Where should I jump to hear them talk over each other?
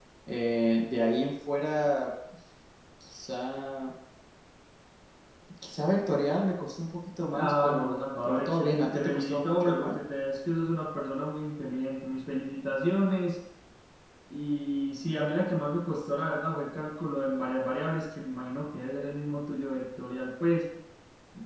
7.3 s

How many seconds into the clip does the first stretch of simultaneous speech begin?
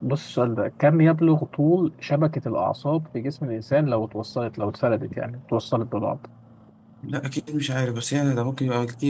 none

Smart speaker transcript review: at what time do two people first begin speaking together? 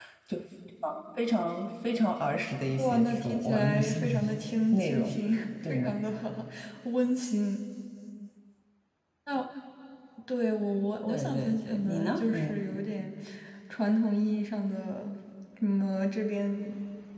2.8 s

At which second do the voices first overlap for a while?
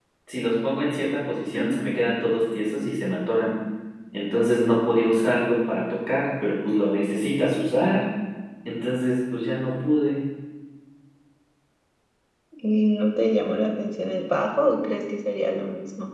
none

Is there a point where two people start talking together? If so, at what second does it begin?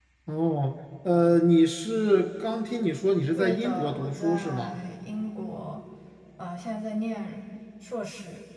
3.4 s

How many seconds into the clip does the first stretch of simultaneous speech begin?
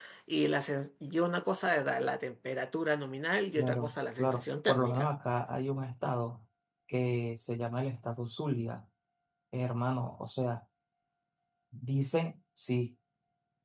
3.6 s

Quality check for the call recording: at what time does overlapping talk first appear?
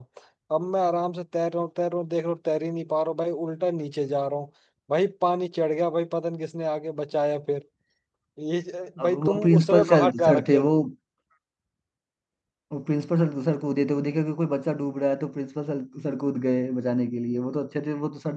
9.0 s

